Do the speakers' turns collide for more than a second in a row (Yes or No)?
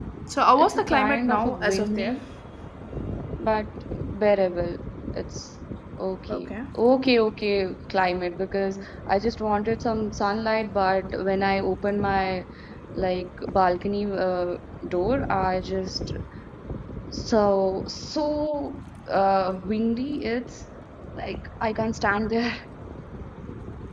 Yes